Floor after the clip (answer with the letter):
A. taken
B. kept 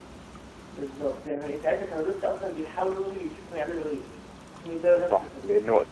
A